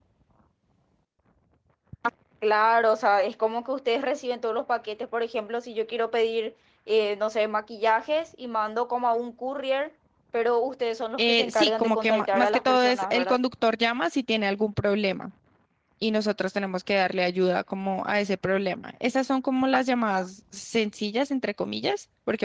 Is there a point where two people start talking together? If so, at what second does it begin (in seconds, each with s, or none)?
11.2 s